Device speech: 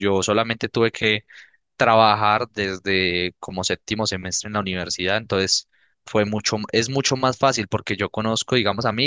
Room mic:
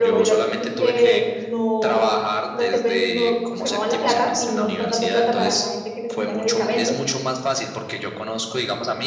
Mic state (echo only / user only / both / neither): both